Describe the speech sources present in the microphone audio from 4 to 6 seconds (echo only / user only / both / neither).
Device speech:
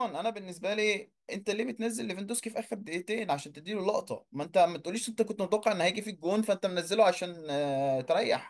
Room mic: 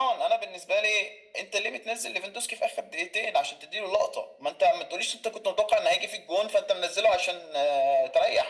echo only